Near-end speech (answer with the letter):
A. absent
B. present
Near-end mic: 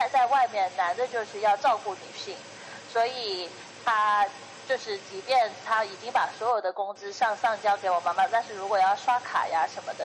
A